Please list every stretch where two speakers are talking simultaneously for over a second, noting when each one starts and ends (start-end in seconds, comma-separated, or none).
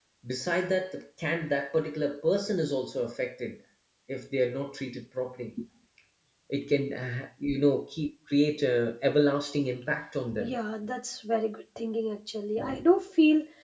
none